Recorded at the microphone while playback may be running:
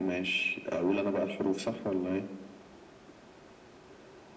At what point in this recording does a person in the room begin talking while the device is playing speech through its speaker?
none

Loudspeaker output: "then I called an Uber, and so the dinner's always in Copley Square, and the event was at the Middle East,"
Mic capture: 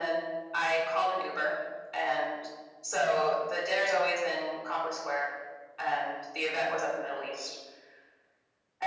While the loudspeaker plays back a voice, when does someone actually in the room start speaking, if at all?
none

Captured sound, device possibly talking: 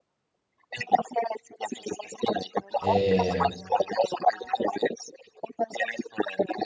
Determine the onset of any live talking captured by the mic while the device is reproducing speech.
2.8 s

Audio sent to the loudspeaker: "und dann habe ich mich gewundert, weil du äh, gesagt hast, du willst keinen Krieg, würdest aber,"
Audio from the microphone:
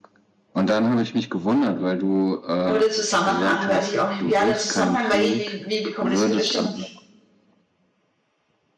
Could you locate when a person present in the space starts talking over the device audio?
2.7 s

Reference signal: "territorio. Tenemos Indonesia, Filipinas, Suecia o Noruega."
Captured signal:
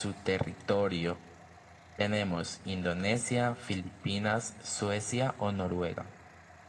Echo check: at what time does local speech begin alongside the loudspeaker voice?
none

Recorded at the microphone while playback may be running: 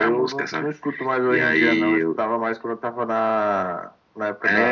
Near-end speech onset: none

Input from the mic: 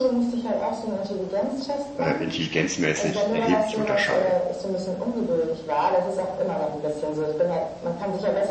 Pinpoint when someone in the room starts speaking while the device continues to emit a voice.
1.9 s

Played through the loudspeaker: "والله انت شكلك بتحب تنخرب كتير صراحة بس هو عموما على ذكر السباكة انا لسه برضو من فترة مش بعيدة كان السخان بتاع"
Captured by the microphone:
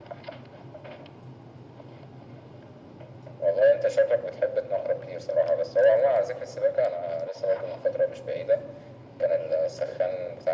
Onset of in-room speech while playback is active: none

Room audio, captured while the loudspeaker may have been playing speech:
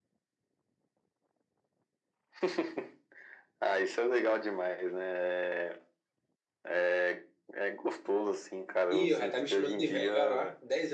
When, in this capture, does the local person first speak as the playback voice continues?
8.9 s

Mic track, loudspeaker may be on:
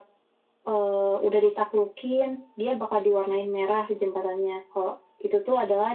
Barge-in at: none

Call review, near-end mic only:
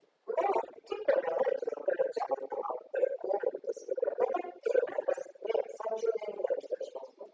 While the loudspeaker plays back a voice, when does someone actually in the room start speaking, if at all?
none

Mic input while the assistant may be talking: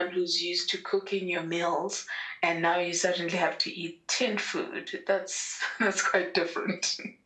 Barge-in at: none

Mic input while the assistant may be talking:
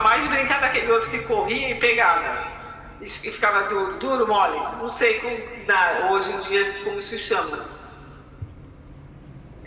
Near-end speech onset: none

